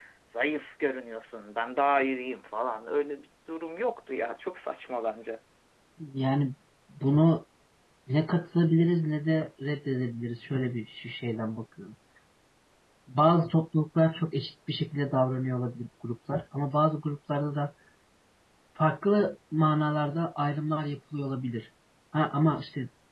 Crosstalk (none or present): none